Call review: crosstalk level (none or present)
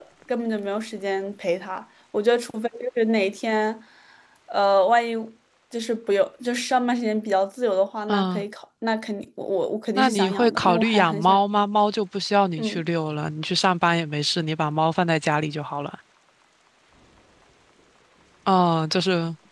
present